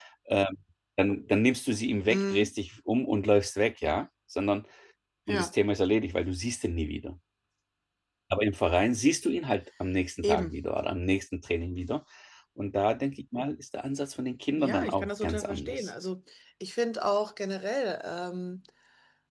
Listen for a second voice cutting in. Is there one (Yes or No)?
Yes